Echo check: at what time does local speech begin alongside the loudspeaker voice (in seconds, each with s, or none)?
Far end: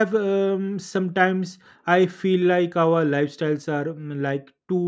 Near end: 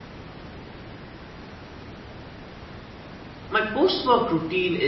3.5 s